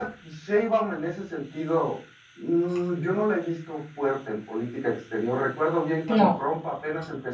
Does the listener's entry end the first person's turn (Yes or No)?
No